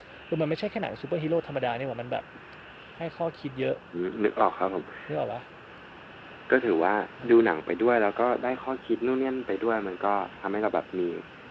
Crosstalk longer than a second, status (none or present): none